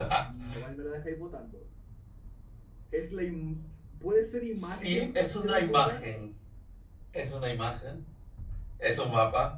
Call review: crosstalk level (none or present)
present